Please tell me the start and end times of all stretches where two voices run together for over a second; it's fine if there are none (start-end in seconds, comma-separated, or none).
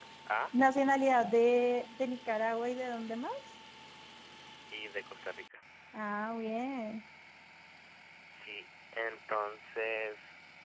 none